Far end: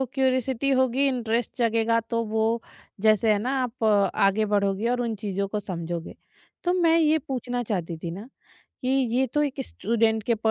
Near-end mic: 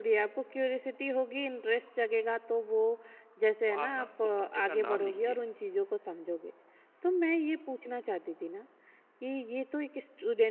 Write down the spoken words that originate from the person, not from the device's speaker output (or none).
तो आप ना उस सब्जेक्ट का नाम लिखिए